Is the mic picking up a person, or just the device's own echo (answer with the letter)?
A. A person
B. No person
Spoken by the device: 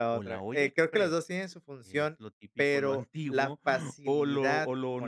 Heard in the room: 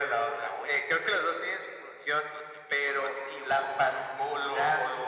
B